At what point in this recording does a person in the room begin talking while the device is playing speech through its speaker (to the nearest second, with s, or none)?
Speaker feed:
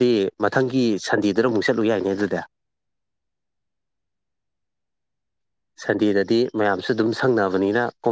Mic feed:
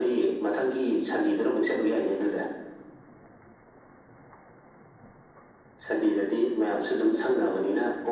none